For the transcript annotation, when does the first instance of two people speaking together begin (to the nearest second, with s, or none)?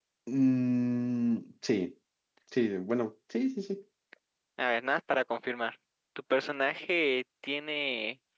none